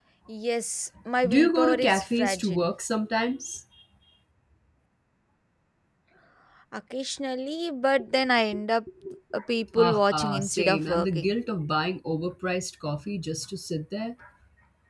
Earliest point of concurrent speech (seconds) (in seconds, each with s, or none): 1.3 s